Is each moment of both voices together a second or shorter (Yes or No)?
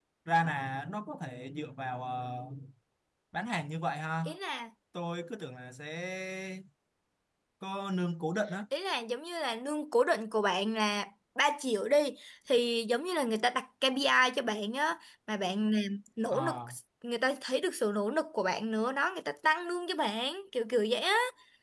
Yes